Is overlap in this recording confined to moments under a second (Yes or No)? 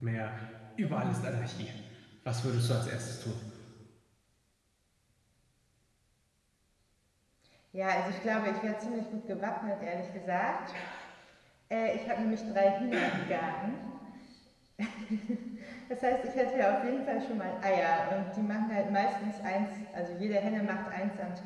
Yes